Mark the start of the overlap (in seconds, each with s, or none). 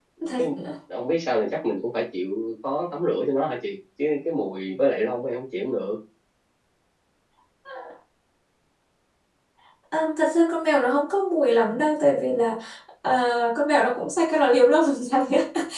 none